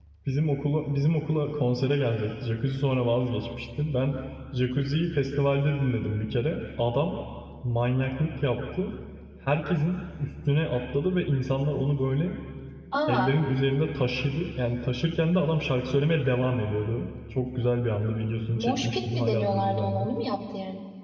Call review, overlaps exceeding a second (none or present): present